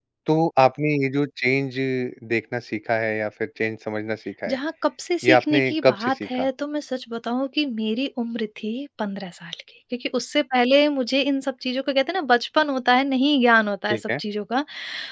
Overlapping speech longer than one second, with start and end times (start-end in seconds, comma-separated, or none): 5.2-6.5